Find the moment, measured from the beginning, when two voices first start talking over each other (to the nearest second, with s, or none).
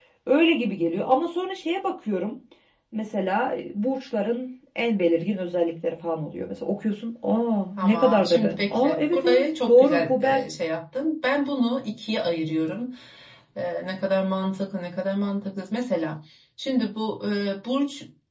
8 s